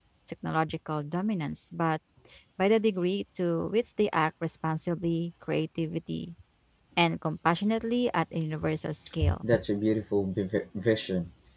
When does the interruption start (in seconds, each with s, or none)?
none